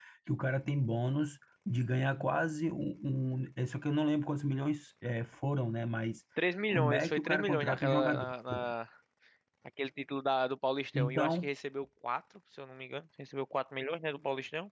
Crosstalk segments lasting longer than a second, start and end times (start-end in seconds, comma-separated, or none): 6.7-8.7